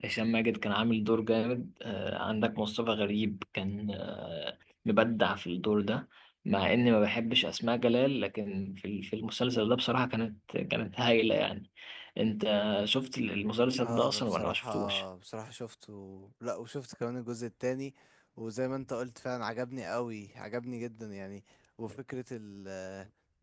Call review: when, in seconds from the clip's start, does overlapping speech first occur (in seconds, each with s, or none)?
13.8 s